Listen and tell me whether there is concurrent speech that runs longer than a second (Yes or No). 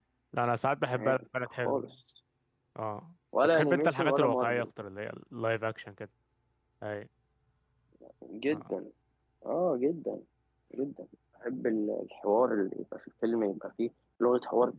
Yes